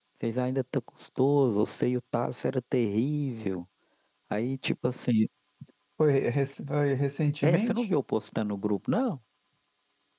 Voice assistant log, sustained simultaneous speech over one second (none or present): none